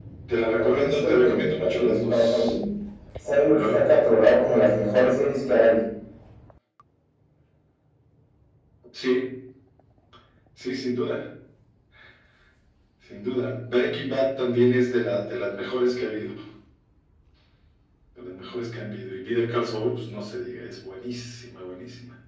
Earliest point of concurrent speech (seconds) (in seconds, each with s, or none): 0.6 s